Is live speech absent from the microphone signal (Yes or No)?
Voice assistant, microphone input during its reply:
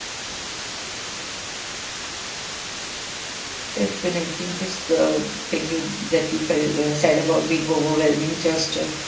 No